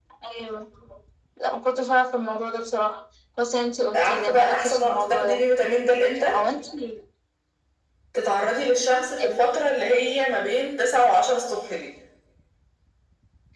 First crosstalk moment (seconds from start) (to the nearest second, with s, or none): 4 s